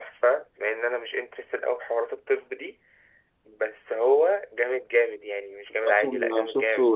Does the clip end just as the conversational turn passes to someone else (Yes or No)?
Yes